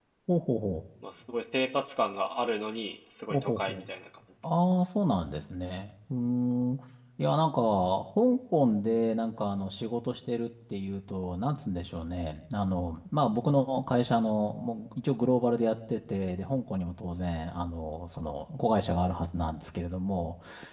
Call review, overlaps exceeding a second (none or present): none